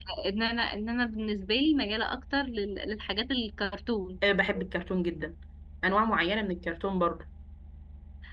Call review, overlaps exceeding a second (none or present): none